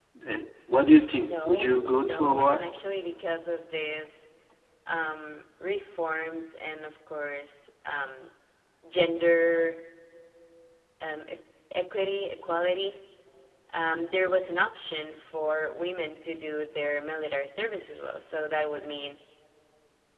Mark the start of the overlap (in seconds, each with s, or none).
1.1 s